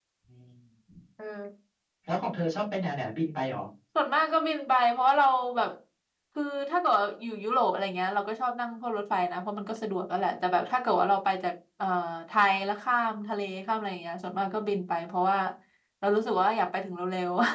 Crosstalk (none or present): none